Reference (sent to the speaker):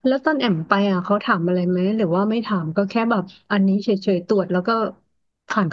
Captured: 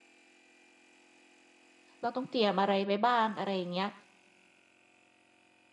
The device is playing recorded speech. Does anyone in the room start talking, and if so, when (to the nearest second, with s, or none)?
2 s